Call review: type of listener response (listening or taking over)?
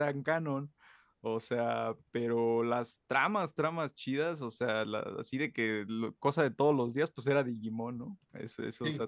listening